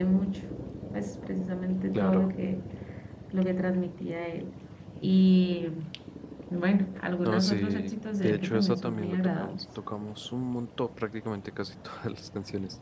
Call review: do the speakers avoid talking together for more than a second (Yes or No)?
No